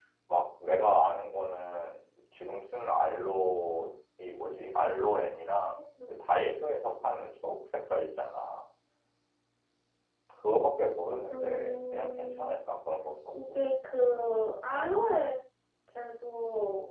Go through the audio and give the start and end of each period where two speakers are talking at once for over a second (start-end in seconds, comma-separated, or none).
11.3-12.5